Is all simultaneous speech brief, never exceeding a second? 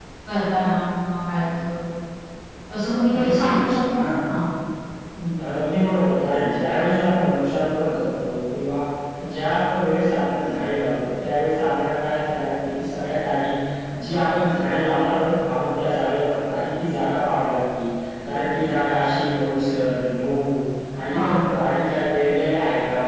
Yes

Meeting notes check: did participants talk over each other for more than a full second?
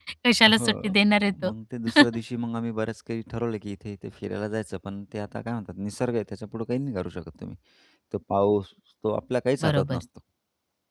No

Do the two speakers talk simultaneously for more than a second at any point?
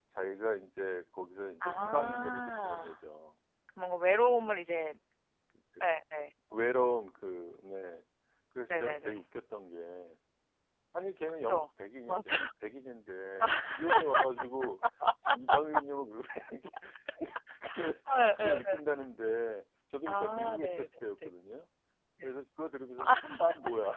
Yes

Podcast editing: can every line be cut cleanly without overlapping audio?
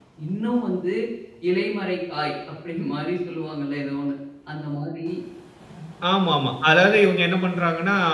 Yes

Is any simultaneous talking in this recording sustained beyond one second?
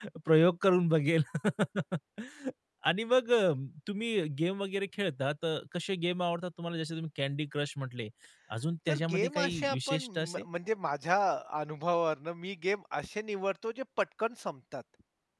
Yes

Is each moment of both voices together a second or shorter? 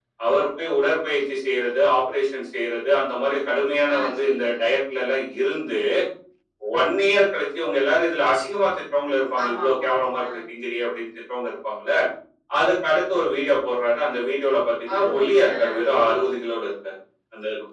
No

